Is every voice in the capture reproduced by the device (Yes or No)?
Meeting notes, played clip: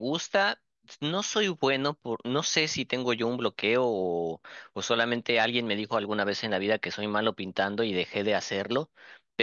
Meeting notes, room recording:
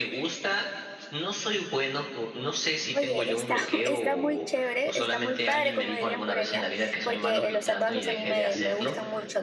No